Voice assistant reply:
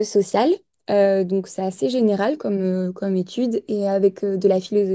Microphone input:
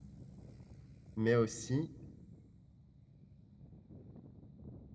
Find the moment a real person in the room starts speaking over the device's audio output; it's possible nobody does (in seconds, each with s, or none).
1.2 s